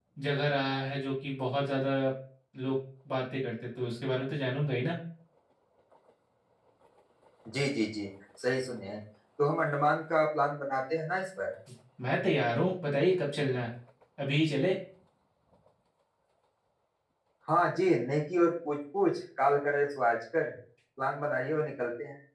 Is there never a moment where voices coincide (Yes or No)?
Yes